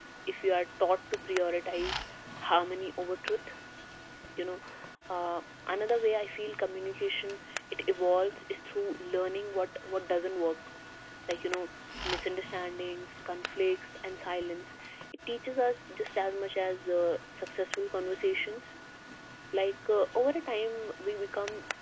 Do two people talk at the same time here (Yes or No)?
No